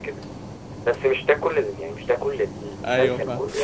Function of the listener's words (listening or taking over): listening